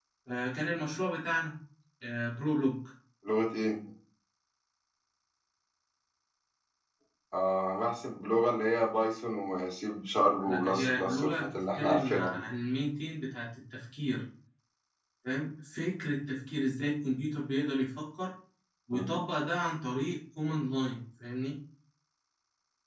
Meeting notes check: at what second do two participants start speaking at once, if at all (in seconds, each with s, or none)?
10.4 s